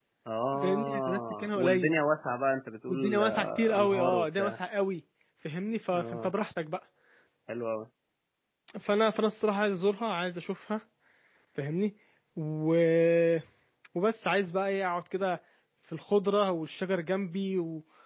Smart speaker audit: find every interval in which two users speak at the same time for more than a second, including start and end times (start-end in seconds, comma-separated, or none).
0.6-1.9, 2.9-4.6